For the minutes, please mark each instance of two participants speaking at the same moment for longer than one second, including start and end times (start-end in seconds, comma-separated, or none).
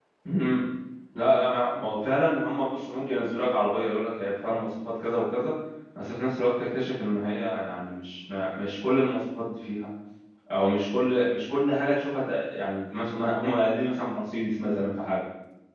none